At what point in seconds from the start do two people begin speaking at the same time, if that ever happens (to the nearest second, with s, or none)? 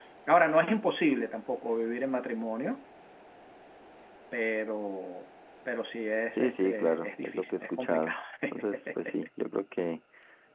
6 s